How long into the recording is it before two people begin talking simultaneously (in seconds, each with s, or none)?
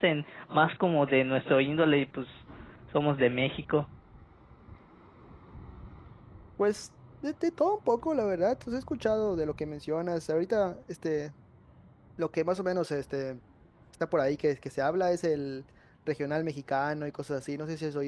none